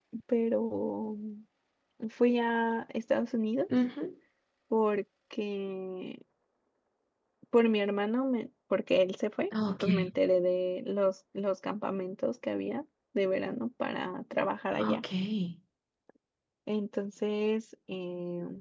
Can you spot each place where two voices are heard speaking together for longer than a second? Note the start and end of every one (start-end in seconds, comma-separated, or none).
none